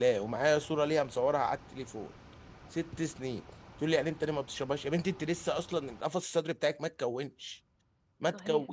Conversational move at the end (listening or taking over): taking over